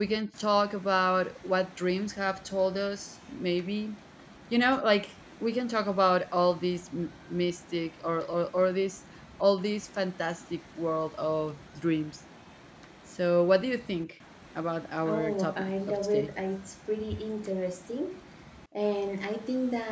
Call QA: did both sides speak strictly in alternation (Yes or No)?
No